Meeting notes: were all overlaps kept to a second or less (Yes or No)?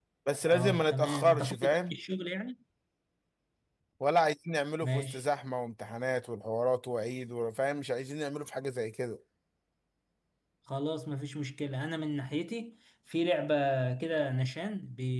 No